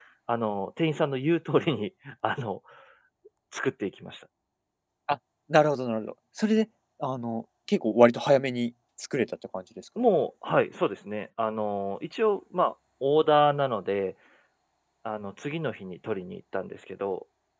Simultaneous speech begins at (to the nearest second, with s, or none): none